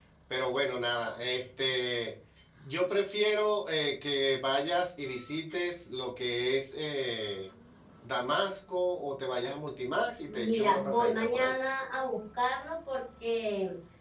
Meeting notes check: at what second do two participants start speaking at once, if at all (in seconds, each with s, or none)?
10.3 s